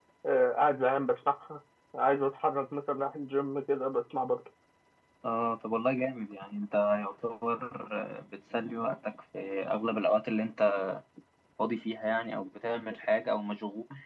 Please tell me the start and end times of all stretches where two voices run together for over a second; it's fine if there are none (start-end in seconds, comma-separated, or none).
none